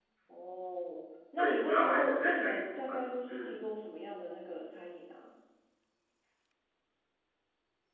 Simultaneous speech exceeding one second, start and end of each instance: 1.4-3.6

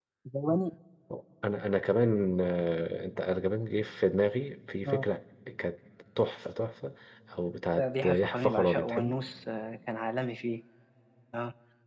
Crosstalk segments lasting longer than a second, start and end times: 7.8-9.2

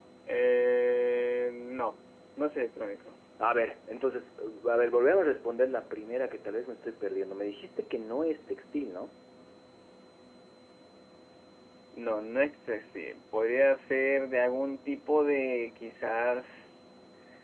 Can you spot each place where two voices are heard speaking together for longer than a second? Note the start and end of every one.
none

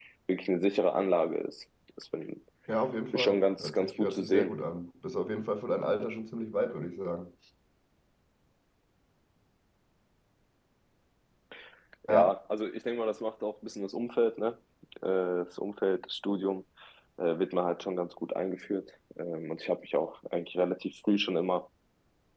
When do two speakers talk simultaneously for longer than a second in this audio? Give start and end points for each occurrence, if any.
3.1-4.5

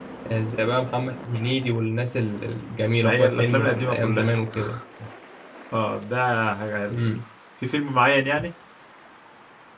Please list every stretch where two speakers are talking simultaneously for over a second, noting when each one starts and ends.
3.0-4.3

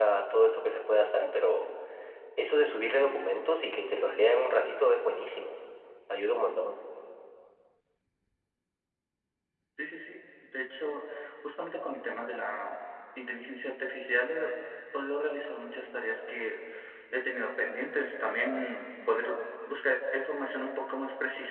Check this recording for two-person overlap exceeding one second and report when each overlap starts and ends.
none

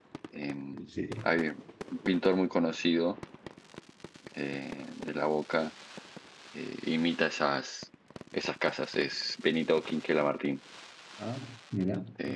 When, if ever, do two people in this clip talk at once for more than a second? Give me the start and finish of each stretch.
none

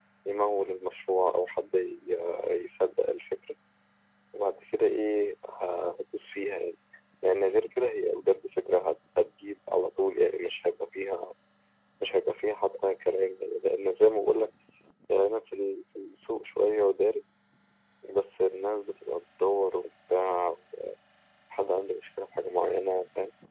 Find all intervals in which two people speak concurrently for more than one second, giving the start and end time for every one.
none

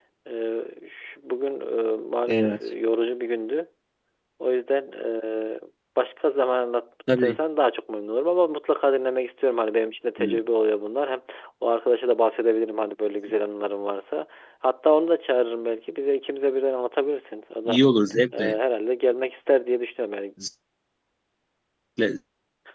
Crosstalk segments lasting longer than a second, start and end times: none

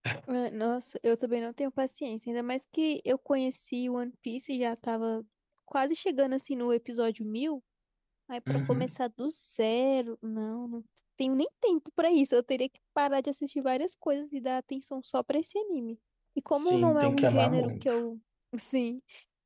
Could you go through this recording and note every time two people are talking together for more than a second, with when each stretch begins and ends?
16.5-17.9

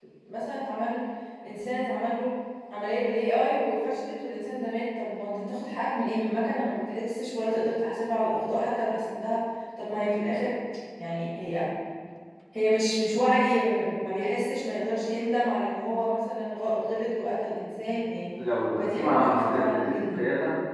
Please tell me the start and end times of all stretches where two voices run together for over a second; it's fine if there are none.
18.8-20.2

